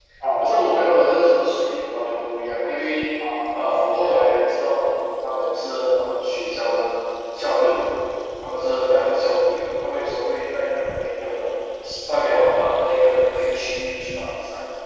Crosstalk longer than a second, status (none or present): none